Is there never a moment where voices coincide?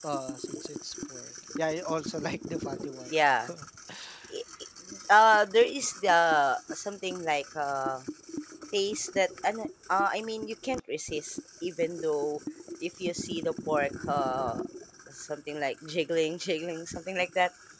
Yes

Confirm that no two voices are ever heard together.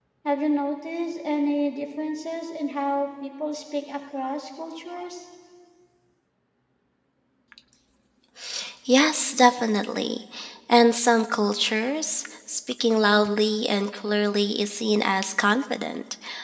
Yes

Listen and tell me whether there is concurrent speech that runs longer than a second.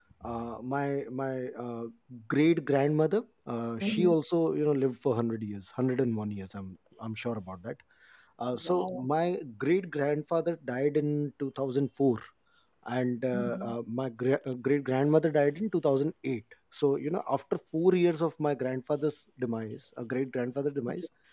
No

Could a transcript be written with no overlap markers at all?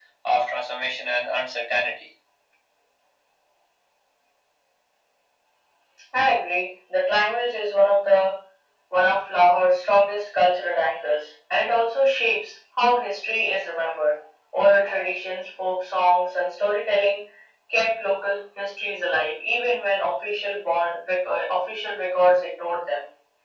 Yes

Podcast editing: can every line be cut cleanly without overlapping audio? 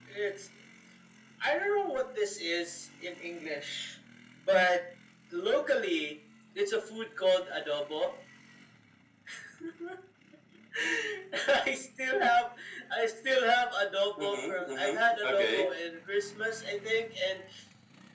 No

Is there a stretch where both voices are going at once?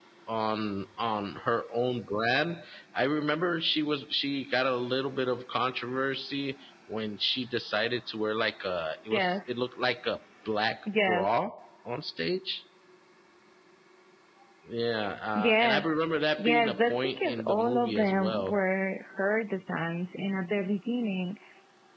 Yes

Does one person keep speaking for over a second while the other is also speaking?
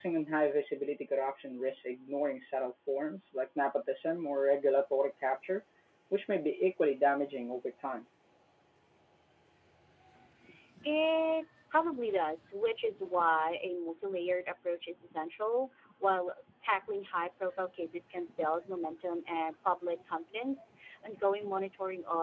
No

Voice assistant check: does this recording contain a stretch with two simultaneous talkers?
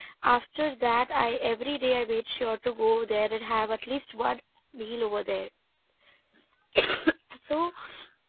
No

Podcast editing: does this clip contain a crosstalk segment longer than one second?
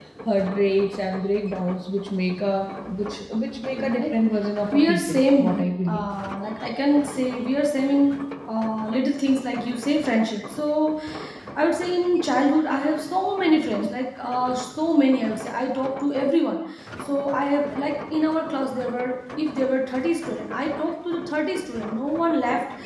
Yes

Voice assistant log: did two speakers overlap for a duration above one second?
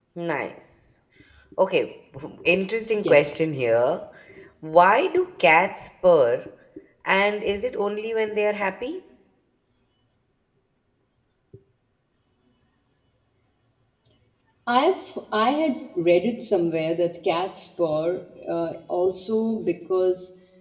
No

